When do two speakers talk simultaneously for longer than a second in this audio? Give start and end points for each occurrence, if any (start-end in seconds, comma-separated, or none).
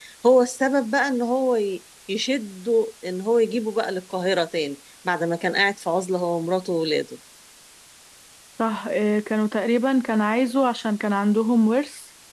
none